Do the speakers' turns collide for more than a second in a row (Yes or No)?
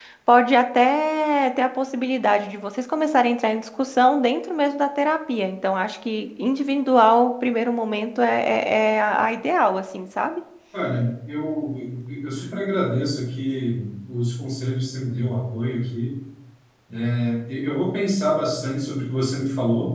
No